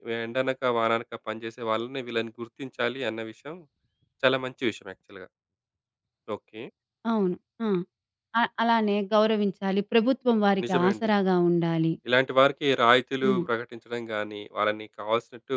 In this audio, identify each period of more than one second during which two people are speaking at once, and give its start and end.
none

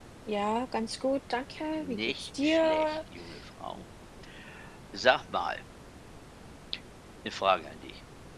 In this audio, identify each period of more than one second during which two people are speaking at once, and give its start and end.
1.8-3.0

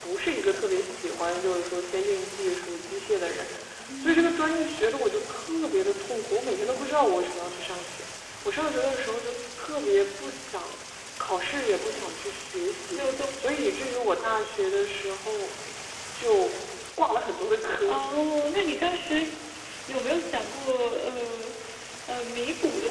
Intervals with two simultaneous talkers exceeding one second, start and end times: none

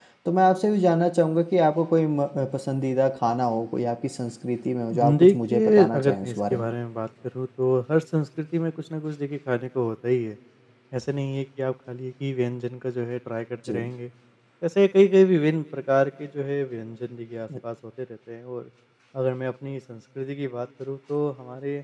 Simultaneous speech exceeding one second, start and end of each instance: 4.9-6.7

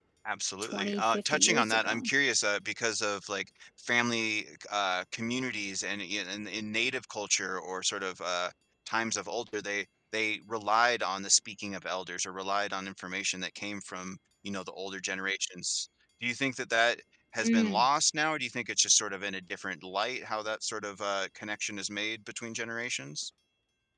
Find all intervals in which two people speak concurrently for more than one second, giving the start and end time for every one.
0.6-2.1

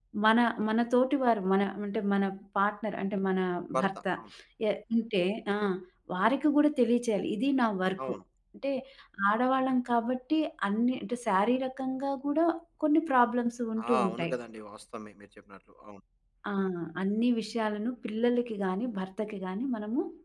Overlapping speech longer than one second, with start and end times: none

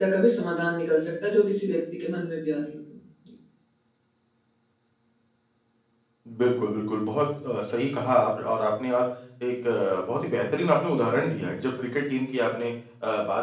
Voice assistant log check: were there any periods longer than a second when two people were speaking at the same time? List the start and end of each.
none

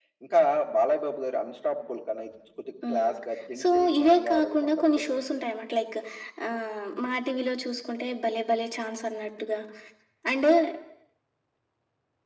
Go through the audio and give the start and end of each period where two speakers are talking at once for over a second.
3.6-5.2

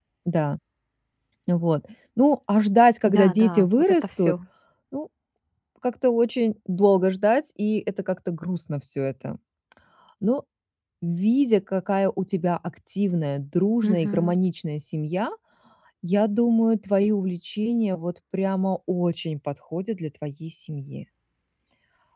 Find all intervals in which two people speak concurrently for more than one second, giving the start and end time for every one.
3.1-4.3

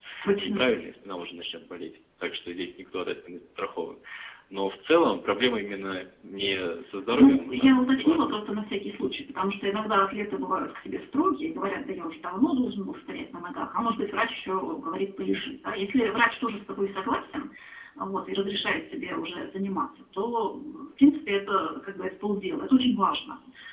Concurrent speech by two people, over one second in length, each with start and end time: 7.1-8.5

